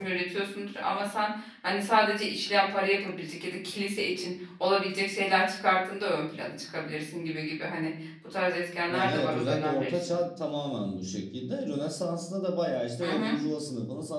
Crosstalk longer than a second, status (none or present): present